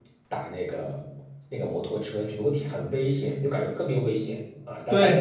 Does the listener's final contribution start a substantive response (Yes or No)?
Yes